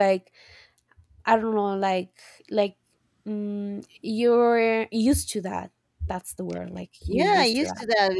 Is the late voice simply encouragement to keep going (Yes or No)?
No